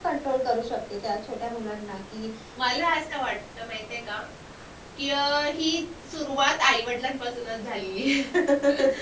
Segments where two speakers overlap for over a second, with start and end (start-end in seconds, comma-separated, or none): none